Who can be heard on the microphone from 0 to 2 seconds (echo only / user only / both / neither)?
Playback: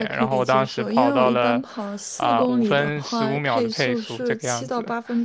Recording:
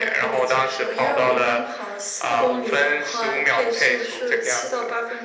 echo only